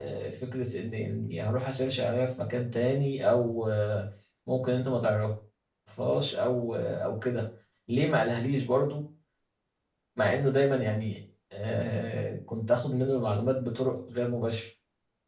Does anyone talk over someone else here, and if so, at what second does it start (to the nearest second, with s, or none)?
none